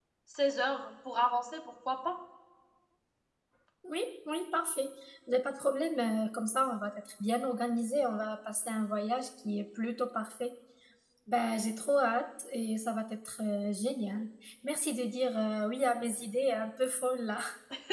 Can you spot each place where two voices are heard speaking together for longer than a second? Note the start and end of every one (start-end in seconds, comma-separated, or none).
none